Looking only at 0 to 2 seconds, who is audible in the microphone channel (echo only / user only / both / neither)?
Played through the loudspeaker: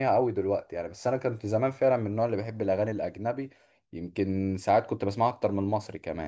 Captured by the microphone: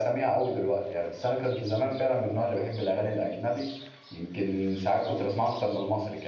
echo only